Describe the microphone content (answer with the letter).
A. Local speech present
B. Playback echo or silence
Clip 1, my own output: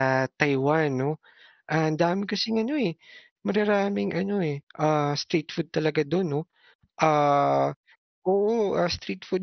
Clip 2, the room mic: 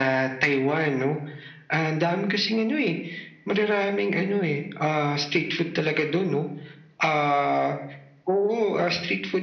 B